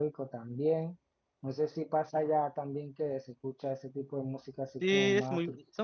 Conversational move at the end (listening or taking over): taking over